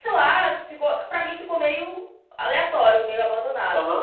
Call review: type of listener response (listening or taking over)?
taking over